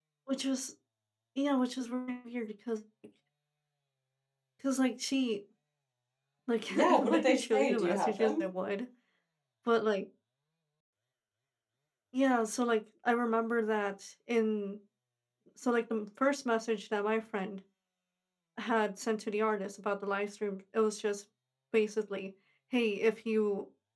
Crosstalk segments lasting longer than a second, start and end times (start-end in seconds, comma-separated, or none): 6.7-8.4